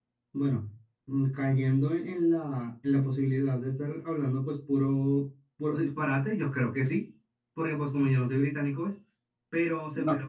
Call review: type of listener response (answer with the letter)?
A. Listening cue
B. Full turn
A